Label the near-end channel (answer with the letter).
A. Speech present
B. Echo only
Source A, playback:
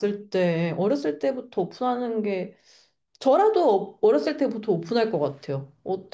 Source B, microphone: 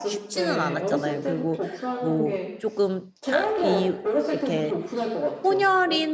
A